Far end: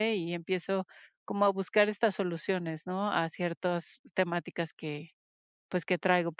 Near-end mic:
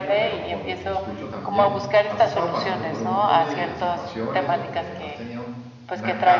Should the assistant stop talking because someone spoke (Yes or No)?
Yes